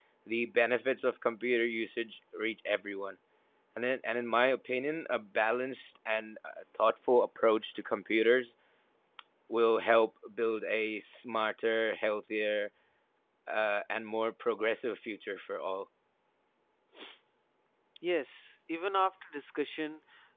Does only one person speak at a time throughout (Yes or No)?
Yes